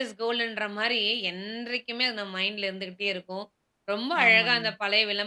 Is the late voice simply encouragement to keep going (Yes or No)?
Yes